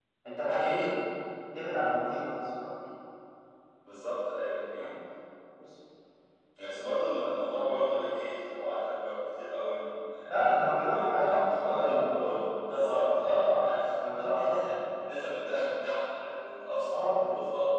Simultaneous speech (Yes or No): Yes